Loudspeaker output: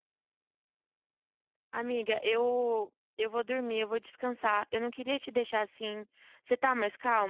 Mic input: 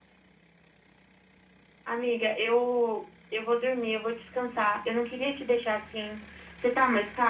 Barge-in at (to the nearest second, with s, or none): none